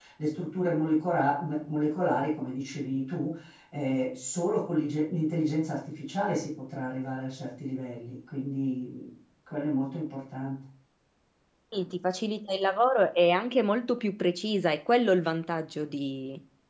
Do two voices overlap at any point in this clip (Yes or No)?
No